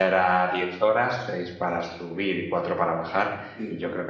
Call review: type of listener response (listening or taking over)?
listening